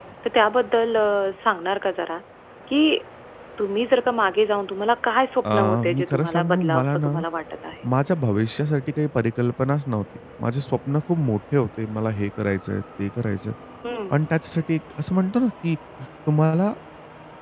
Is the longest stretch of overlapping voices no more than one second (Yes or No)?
No